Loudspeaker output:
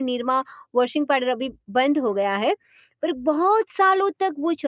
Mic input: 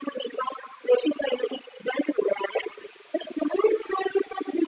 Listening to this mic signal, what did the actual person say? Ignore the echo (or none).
none